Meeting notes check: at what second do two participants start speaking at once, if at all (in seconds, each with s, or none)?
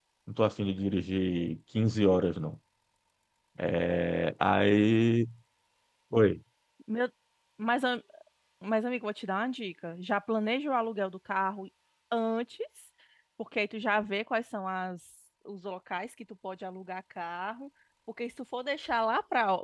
none